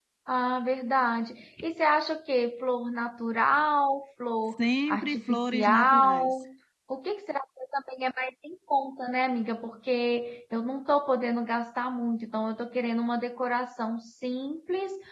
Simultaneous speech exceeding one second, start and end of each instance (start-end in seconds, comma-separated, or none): 4.6-6.3